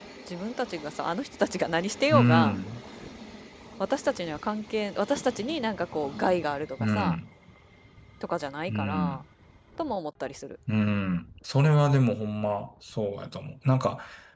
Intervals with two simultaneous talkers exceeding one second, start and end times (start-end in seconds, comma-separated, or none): none